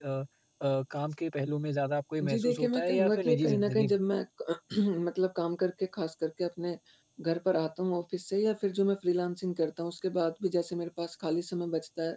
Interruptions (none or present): present